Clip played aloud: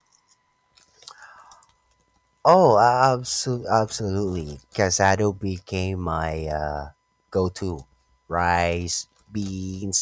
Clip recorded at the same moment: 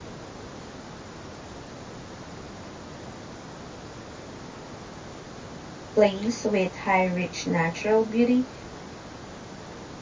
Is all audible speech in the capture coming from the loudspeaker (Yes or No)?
No